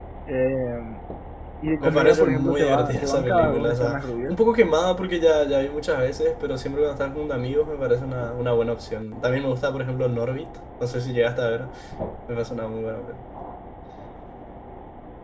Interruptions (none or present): present